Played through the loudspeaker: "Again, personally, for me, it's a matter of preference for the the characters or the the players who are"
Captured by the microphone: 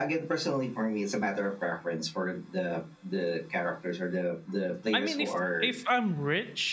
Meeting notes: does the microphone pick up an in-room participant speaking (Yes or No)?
Yes